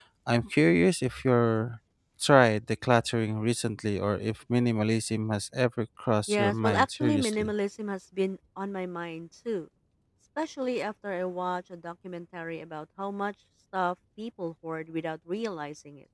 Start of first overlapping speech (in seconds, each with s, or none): 6.3 s